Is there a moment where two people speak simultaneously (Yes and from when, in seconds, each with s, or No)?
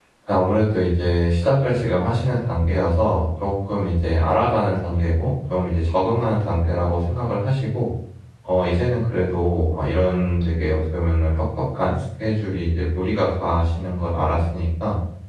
No